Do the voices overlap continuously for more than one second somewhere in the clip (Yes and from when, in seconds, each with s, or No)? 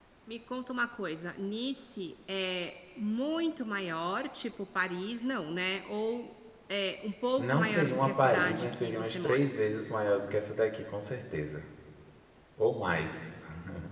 Yes, from 7.4 s